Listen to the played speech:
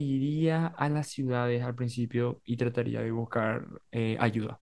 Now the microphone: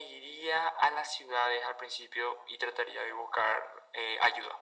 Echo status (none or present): present